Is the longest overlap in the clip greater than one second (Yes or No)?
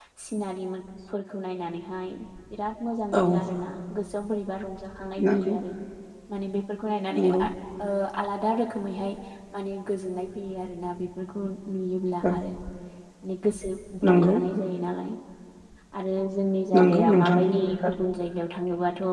Yes